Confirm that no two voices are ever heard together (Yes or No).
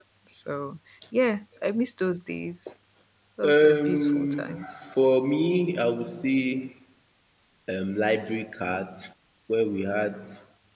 No